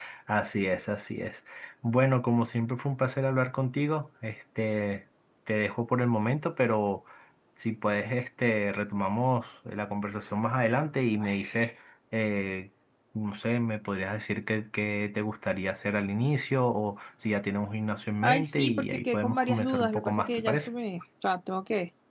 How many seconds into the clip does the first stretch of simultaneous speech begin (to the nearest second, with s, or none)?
18 s